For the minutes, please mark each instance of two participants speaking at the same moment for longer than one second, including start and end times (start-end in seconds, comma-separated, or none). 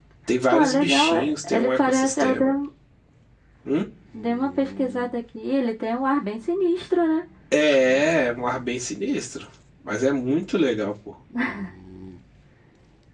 0.5-2.5